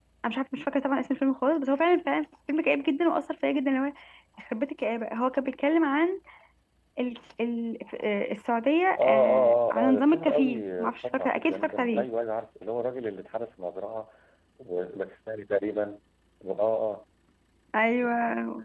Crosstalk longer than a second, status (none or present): present